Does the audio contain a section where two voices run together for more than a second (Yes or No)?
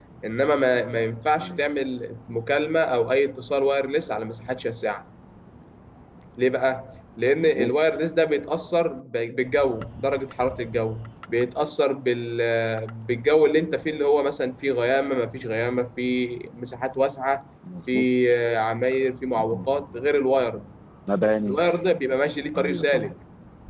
No